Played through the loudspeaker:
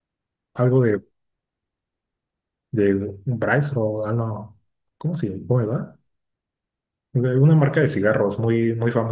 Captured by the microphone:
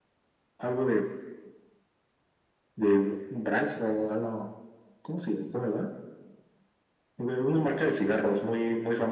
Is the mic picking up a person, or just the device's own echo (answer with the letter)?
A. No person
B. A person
A